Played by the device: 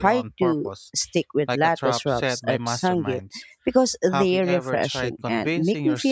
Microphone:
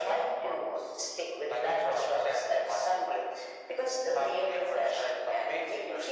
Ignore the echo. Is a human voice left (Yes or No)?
No